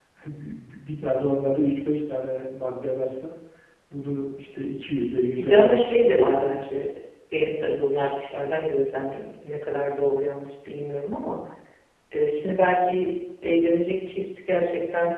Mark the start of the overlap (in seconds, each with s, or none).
5.4 s